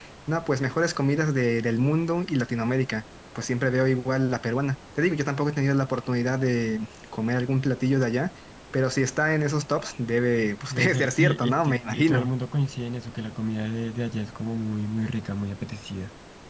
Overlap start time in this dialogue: 10.7 s

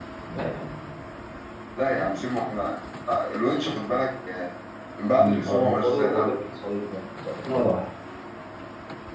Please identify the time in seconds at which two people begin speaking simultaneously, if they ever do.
5.1 s

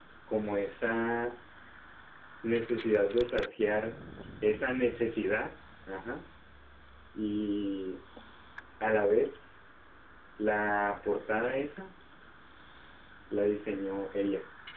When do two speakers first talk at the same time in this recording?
none

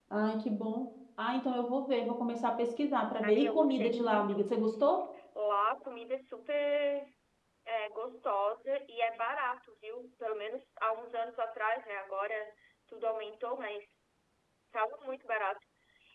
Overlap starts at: 3.2 s

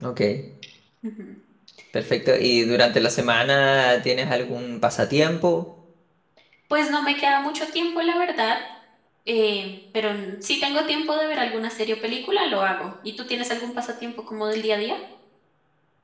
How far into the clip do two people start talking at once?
none

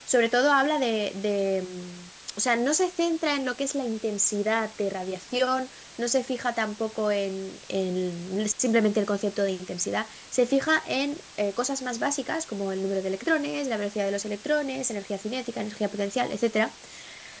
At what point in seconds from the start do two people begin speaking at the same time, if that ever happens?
none

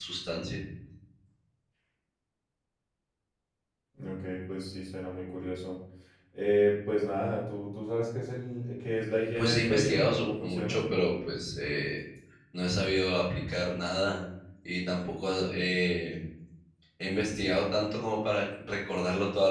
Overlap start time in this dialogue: 9.3 s

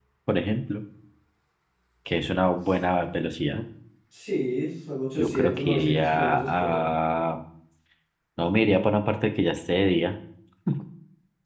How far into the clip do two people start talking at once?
5.2 s

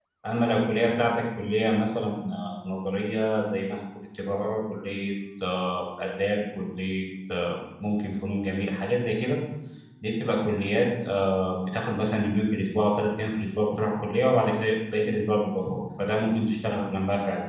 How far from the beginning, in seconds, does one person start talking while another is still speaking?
none

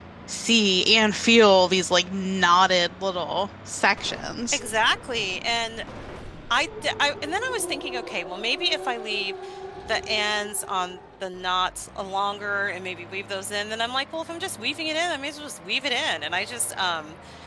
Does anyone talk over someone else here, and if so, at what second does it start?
none

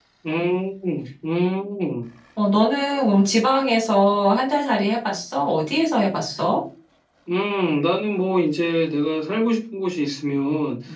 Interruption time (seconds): none

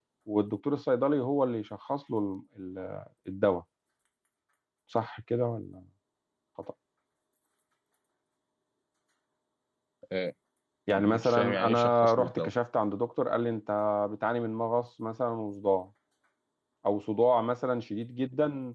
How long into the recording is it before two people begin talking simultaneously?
10.9 s

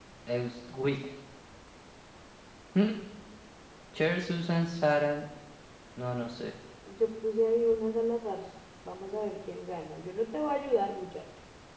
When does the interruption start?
none

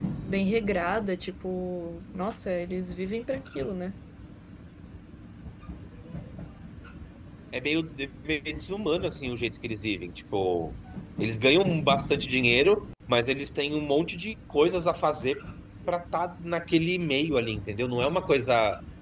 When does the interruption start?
none

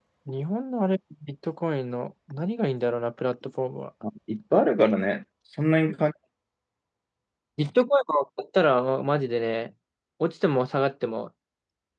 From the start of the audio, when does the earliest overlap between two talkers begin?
none

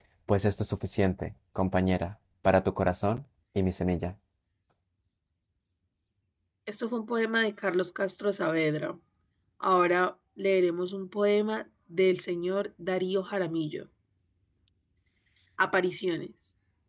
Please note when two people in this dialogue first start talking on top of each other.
none

